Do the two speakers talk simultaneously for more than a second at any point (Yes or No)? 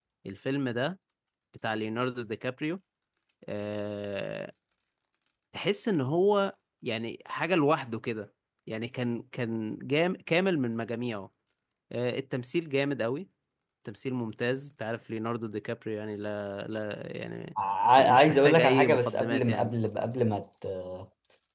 Yes